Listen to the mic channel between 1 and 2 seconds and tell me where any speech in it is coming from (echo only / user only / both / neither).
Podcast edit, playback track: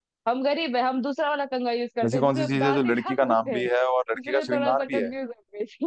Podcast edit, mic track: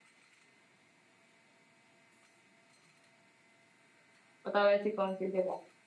neither